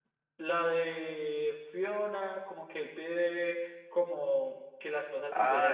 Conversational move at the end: taking over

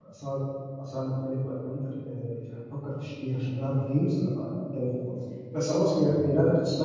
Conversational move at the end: listening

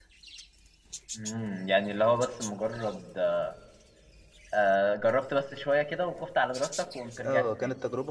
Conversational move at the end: taking over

